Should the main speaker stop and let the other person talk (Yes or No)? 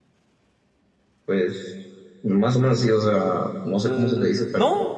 Yes